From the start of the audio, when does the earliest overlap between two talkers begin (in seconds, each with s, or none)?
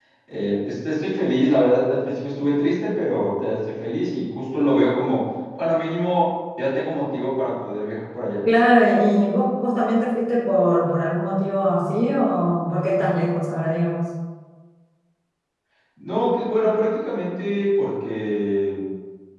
none